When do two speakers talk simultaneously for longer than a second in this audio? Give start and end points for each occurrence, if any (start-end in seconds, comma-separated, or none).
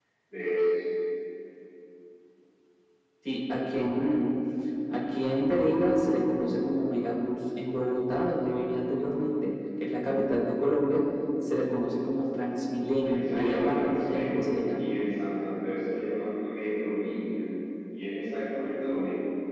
13.0-14.9